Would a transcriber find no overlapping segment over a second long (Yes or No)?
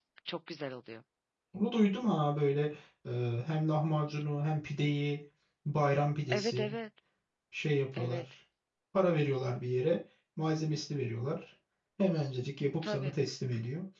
Yes